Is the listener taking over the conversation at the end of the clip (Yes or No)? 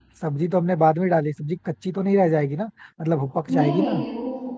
Yes